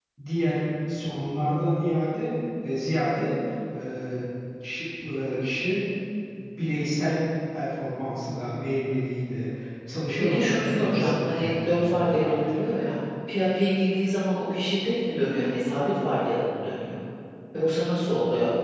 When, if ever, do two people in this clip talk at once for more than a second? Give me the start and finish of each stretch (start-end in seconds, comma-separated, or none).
10.2-12.3